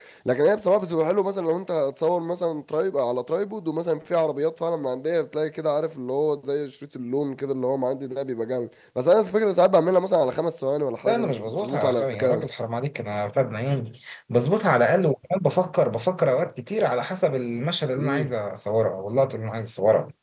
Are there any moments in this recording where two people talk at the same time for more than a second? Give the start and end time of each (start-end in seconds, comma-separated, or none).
11.1-12.4